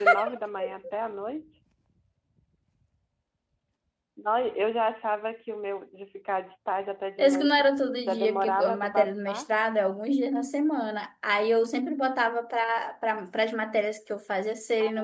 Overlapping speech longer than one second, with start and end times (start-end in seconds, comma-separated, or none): 8.0-9.4